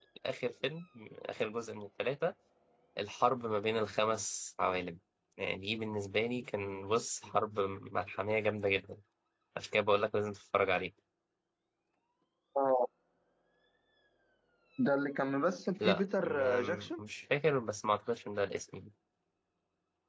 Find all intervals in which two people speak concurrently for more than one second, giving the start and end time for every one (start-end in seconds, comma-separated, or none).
15.8-17.0